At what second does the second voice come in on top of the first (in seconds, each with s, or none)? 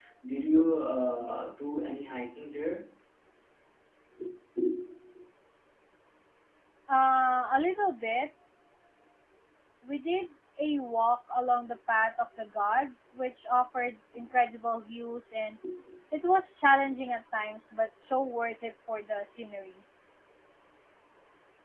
none